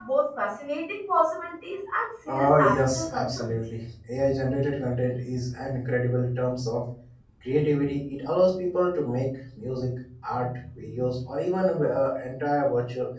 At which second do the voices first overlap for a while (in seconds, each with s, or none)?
2.3 s